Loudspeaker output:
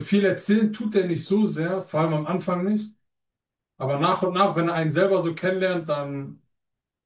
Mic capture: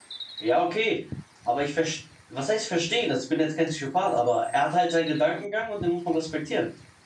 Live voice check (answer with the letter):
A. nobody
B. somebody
B